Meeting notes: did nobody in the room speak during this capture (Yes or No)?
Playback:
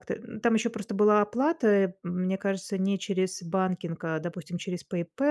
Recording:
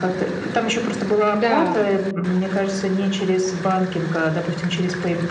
No